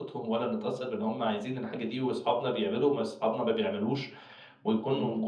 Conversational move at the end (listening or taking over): listening